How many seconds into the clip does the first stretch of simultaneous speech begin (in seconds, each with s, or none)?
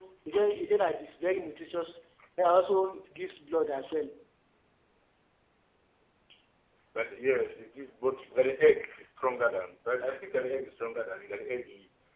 none